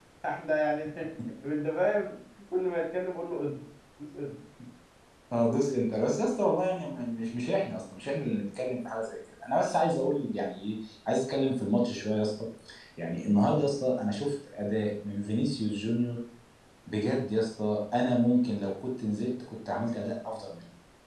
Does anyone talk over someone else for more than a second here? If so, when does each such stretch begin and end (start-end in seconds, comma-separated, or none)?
none